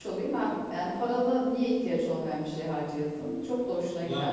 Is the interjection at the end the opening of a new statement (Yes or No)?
Yes